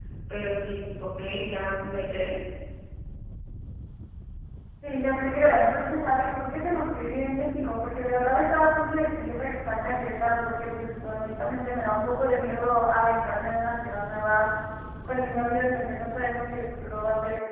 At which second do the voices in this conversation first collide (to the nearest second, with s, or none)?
none